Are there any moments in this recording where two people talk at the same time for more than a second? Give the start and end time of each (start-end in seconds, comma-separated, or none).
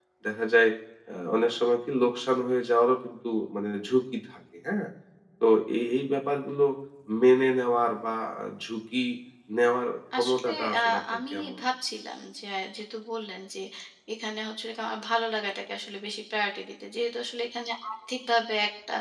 10.2-11.6